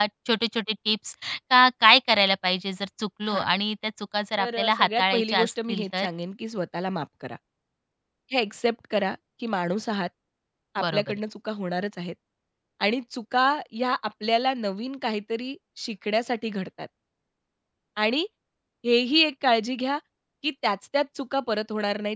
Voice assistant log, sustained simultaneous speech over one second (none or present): present